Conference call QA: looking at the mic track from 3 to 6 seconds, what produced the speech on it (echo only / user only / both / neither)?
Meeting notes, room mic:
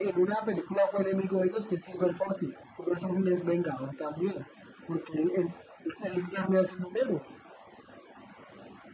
echo only